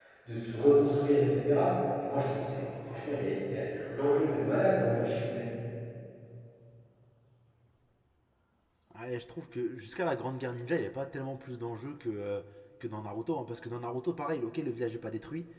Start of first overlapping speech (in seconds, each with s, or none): none